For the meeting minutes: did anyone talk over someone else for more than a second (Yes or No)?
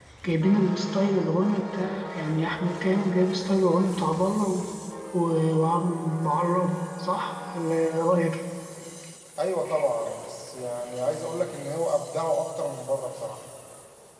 No